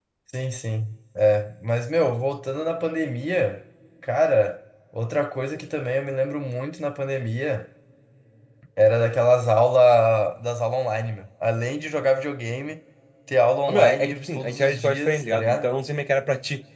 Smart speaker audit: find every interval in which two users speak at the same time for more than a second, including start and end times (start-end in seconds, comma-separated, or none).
13.7-15.7